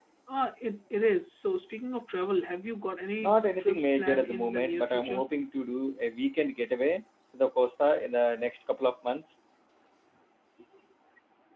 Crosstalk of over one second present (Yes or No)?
Yes